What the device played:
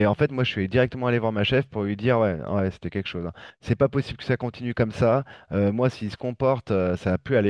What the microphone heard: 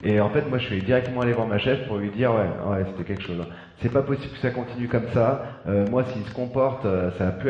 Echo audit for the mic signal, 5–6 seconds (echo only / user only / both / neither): echo only